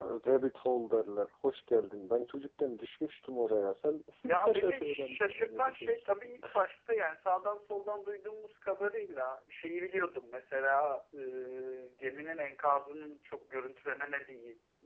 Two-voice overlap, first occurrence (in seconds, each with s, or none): 4.2 s